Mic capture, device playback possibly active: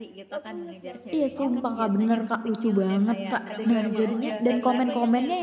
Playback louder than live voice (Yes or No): No